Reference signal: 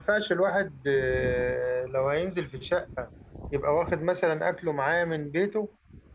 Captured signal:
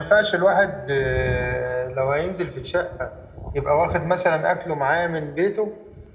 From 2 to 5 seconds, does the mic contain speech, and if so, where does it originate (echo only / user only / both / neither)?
echo only